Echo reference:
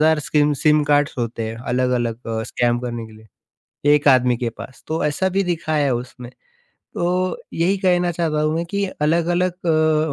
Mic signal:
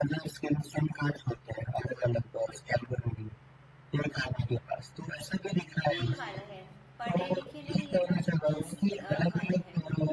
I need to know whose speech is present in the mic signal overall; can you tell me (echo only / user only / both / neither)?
both